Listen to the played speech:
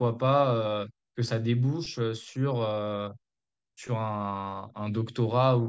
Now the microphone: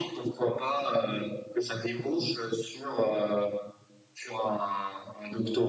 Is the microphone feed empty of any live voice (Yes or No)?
Yes